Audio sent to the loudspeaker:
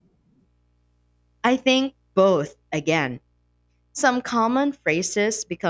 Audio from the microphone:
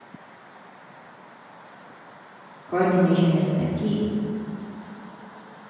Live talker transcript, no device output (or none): coordination is the key.